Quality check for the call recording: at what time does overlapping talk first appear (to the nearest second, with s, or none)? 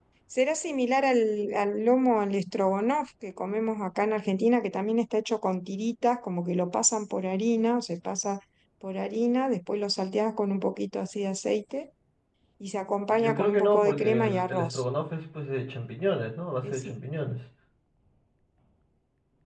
13 s